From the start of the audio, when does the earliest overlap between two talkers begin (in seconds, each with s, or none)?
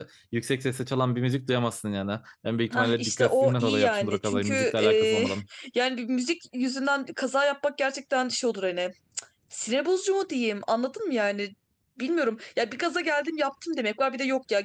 2.7 s